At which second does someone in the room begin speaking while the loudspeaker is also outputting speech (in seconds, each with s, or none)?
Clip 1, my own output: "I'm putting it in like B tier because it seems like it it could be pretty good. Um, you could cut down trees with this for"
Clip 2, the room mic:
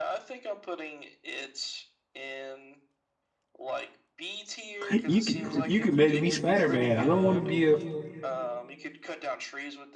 4.9 s